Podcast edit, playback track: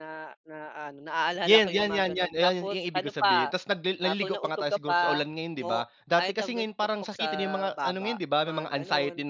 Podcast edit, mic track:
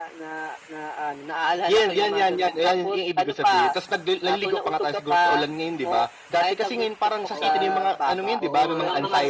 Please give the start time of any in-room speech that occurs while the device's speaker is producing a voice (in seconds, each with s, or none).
7.3 s